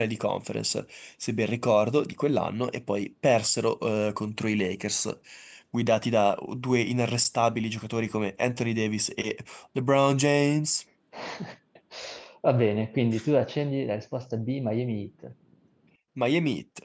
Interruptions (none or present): none